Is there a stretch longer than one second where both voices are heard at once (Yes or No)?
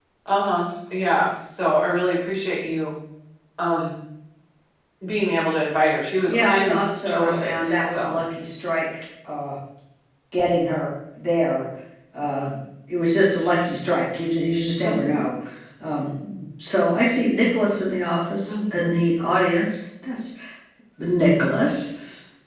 Yes